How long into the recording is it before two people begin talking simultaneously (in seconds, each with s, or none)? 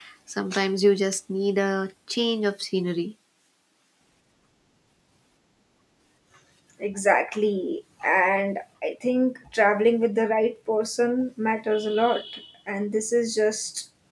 none